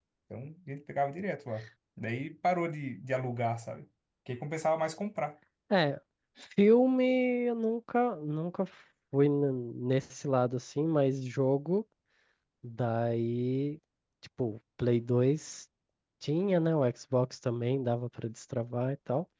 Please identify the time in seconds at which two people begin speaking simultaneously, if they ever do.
none

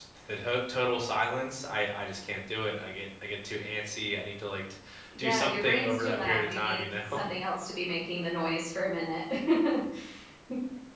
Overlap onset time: 5.2 s

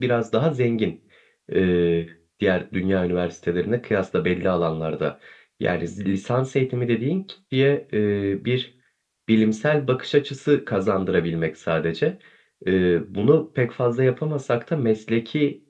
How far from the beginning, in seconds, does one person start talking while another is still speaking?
none

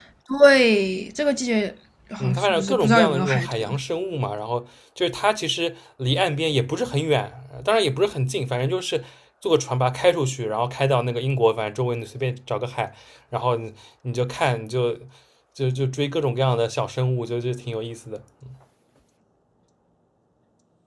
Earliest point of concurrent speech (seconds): 2.2 s

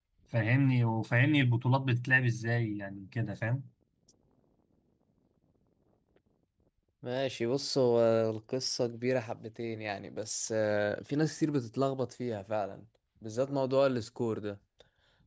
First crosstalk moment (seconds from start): none

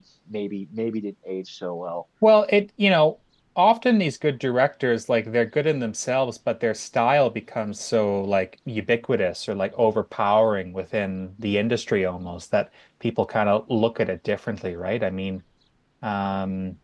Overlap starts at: none

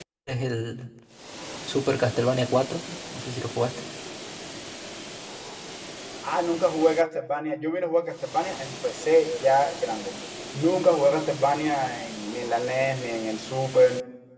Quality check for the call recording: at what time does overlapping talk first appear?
none

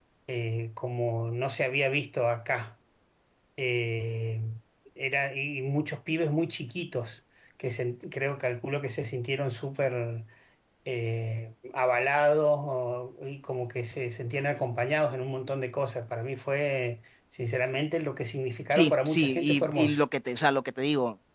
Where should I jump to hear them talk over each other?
18.7 s

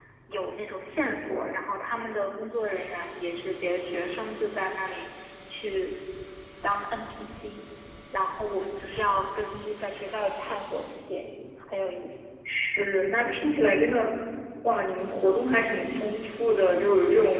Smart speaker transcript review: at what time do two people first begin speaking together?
none

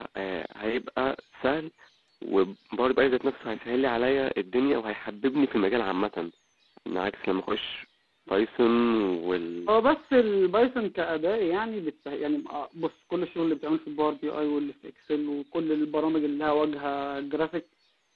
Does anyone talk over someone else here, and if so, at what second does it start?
none

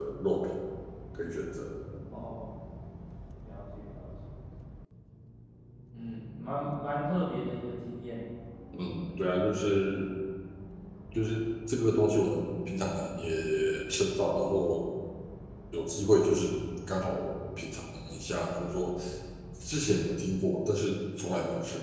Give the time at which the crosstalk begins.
none

